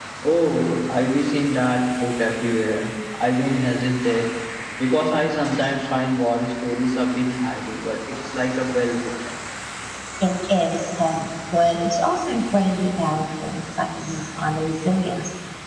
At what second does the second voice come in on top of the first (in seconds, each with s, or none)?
none